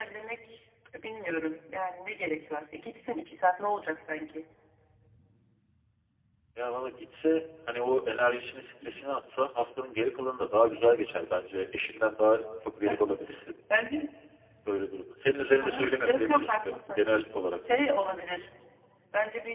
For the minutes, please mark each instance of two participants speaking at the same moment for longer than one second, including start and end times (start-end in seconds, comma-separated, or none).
15.6-17.1